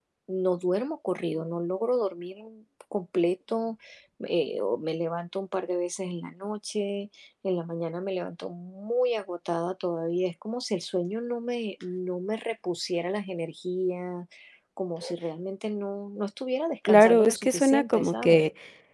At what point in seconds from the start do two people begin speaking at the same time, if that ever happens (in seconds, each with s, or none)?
16.9 s